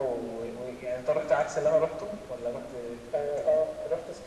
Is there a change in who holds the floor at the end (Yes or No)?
Yes